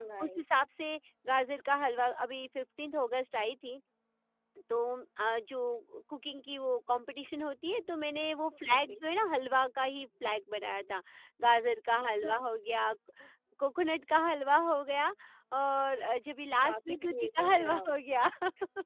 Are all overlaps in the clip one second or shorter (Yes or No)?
No